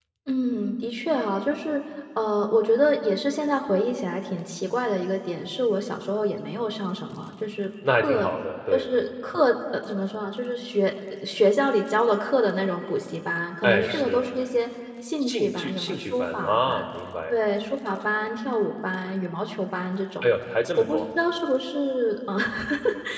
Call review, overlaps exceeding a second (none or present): present